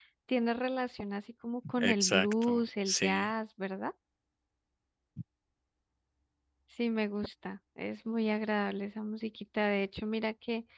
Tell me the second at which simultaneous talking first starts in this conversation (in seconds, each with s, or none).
1.8 s